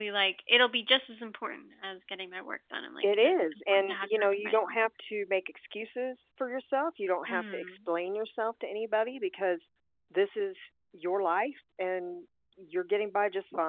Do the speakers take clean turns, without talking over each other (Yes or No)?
No